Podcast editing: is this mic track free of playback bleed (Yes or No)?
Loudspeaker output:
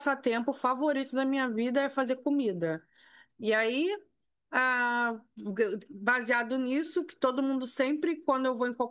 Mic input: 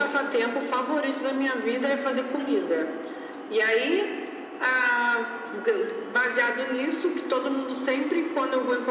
No